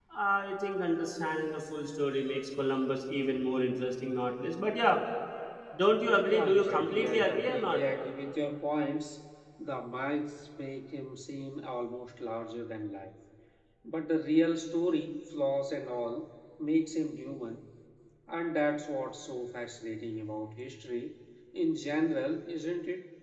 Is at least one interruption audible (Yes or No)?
Yes